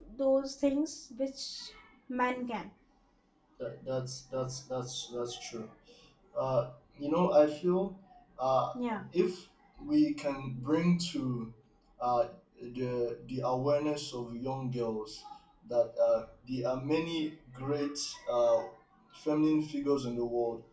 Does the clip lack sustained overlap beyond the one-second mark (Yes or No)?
Yes